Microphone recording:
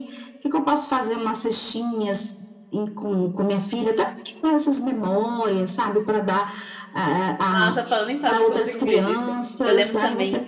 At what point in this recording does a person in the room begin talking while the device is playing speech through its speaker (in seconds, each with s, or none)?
7.5 s